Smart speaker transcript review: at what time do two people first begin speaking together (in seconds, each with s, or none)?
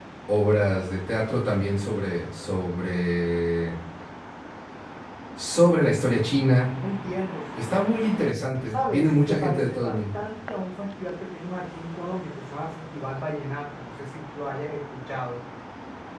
8.7 s